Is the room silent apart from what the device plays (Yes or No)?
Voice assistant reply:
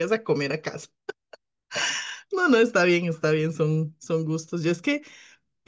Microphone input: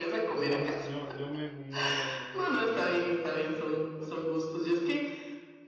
No